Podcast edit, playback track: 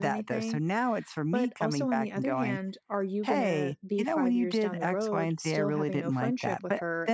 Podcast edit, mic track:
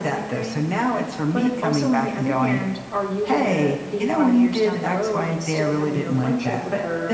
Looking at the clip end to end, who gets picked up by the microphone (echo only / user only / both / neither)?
echo only